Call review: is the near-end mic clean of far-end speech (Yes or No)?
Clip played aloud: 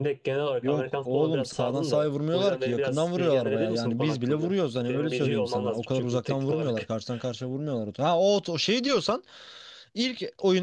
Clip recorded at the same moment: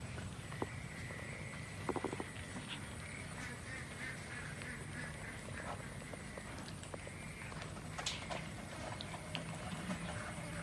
Yes